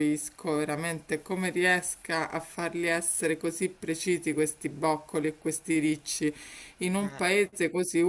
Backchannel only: Yes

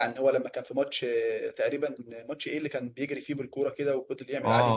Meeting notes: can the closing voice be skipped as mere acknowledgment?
No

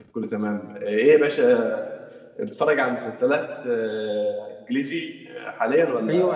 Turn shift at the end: Yes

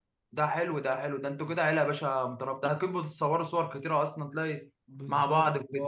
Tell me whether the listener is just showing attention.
No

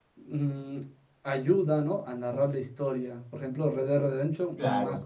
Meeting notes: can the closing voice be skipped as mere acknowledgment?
Yes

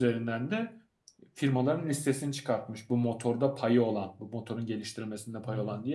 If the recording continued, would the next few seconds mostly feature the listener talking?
No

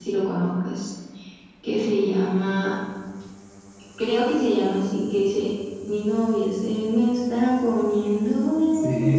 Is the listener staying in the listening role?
No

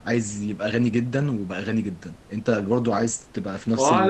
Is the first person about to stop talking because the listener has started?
Yes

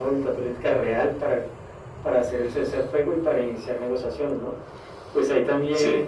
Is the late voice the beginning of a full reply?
No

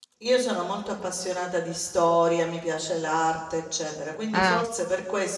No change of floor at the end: Yes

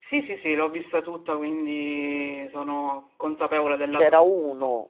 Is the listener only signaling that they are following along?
No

